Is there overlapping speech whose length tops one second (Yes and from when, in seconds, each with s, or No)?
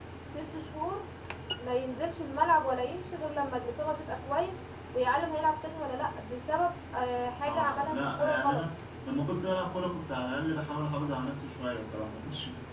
Yes, from 7.4 s